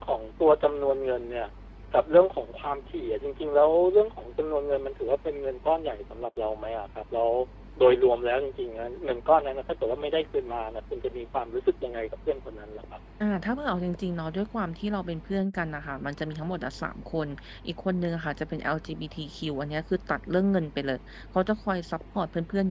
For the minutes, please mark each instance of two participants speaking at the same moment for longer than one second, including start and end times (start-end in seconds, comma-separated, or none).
none